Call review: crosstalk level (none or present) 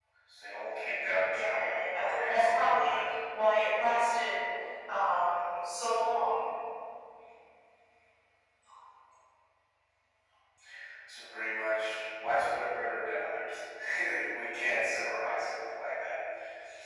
present